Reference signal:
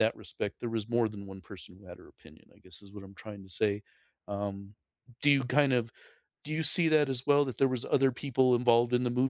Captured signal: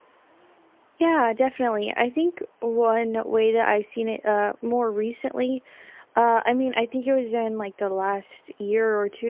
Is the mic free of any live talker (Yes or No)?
No